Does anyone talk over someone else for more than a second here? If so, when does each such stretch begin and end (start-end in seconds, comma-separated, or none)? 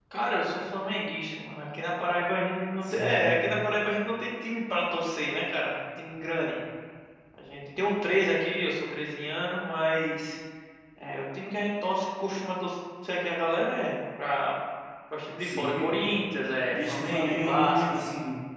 16.7-18.0